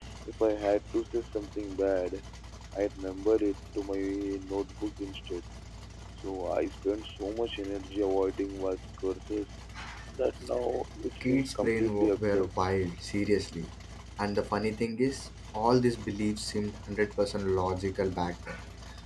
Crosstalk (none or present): present